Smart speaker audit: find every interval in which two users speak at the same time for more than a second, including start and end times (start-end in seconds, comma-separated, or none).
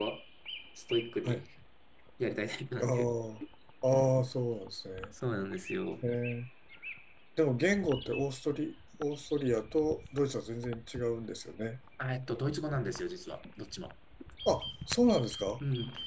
none